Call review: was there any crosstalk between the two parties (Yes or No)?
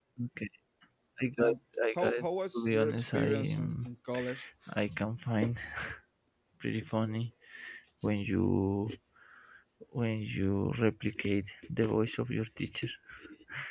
Yes